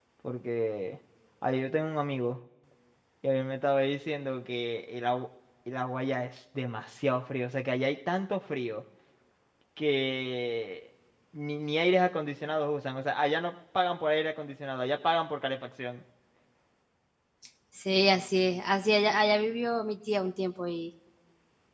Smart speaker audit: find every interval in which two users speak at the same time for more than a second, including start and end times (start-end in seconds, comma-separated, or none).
none